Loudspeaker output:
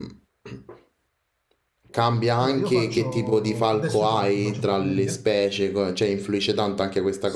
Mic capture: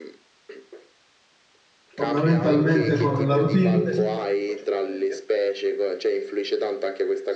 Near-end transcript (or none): fondamentalmente con la routine,